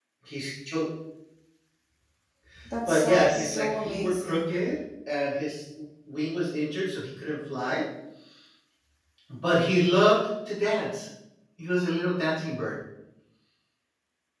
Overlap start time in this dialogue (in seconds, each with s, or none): 2.8 s